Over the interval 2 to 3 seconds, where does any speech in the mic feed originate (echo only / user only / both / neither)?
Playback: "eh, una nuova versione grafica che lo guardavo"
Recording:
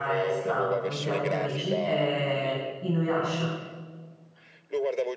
both